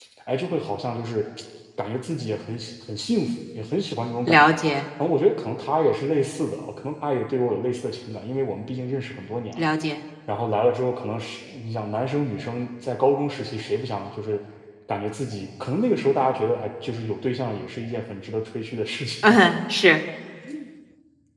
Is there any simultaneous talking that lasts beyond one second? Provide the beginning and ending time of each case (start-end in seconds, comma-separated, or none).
none